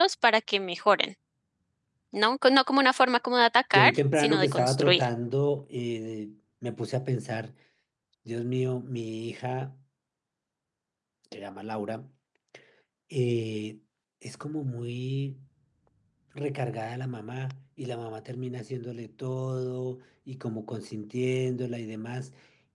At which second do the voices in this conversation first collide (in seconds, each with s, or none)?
3.7 s